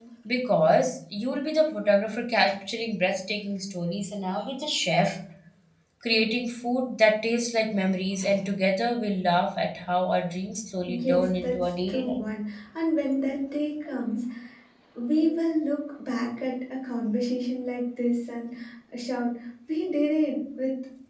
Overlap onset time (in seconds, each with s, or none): 10.9 s